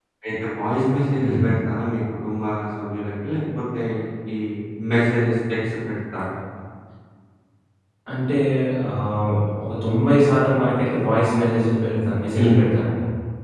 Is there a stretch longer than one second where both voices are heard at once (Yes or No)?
No